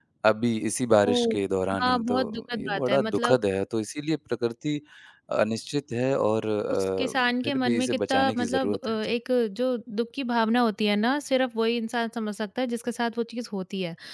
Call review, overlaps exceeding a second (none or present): present